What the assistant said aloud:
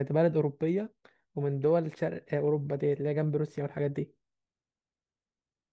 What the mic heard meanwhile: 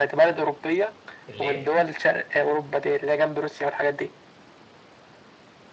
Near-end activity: present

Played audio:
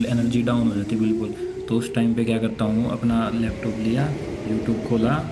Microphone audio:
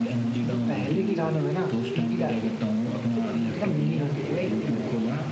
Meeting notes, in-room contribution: present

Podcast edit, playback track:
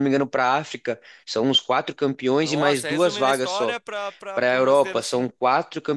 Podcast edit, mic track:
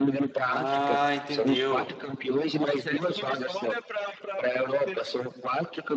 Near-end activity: present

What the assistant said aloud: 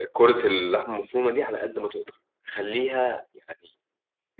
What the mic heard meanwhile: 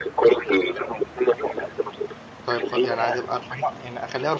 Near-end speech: present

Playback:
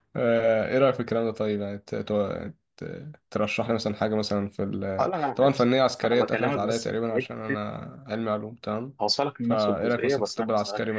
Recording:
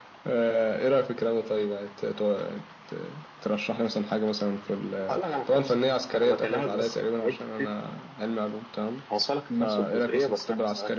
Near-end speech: none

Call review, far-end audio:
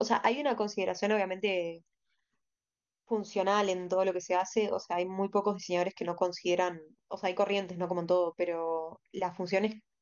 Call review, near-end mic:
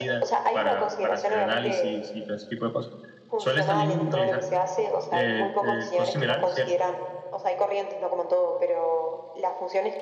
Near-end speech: present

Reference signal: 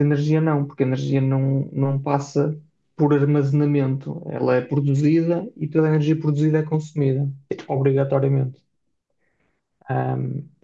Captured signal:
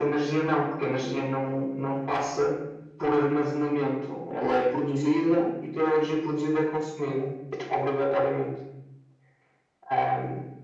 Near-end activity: none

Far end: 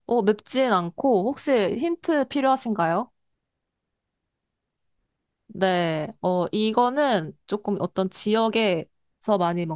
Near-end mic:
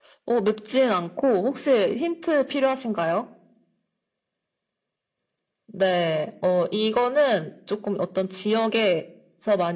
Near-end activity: none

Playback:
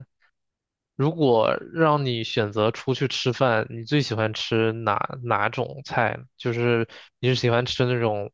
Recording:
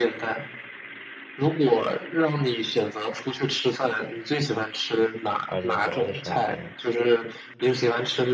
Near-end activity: present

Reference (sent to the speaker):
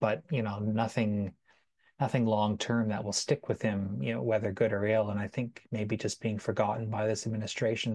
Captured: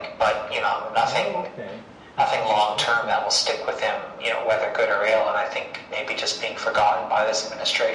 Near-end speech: present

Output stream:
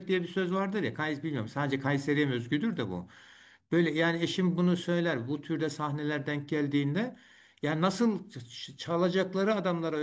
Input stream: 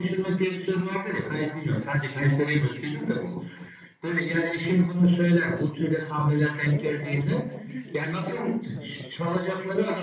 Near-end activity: present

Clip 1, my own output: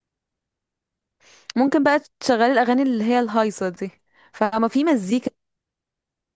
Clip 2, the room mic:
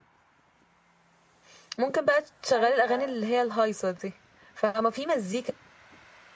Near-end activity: present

